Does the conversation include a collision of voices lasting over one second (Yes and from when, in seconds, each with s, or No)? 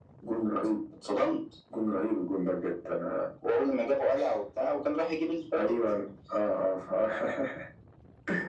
No